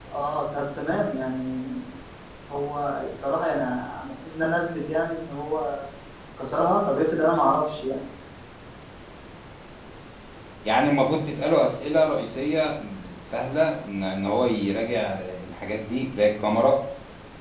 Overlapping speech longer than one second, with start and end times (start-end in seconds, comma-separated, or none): none